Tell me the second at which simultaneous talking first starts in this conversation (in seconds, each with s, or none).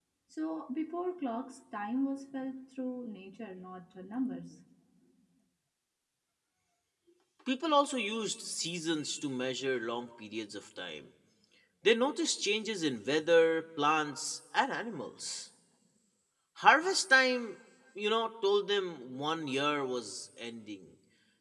none